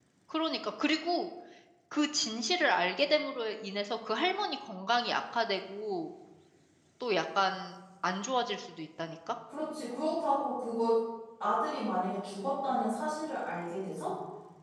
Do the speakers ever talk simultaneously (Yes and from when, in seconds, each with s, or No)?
No